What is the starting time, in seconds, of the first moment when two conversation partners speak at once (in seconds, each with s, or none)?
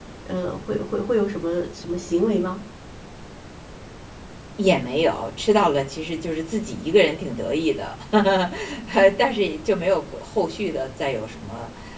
none